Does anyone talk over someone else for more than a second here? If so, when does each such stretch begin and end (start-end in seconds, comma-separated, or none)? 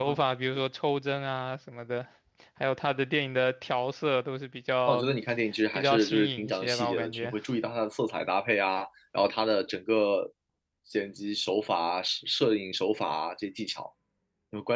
5.7-7.3